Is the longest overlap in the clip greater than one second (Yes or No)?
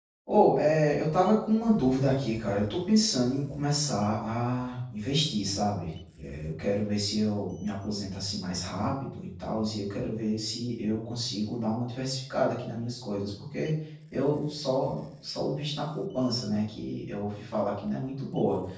No